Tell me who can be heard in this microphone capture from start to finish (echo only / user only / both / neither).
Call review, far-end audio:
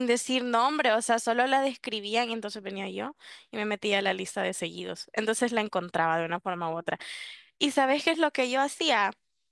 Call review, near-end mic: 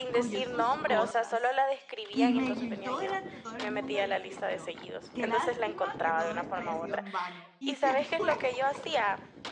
both